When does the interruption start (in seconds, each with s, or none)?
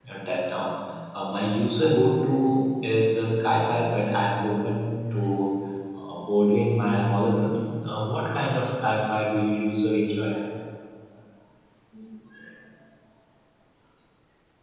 none